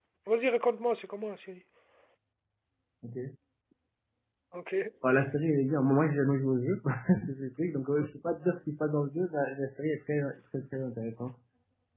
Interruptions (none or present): none